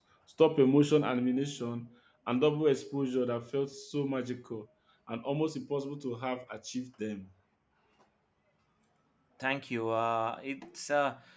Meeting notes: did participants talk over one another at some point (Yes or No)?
No